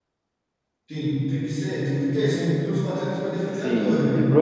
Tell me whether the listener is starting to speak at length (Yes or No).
Yes